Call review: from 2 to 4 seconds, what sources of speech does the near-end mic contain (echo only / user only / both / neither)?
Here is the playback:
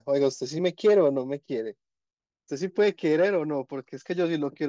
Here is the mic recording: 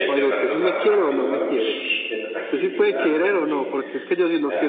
both